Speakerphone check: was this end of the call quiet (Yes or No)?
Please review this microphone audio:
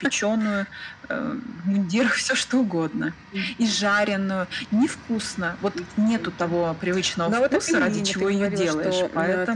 Yes